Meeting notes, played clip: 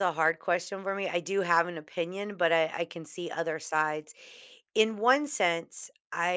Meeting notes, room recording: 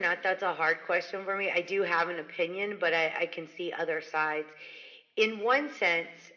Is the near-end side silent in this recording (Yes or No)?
Yes